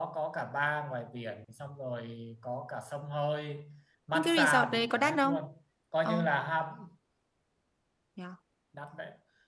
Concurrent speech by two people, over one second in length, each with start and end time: 4.1-5.3

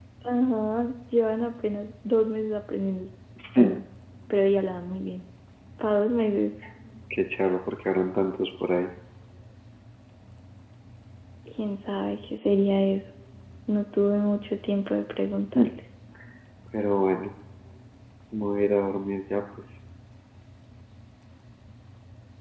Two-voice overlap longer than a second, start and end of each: none

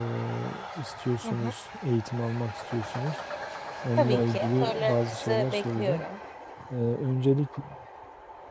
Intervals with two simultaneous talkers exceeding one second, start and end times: 4.0-6.0

